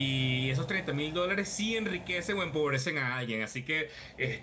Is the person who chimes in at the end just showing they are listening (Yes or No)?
Yes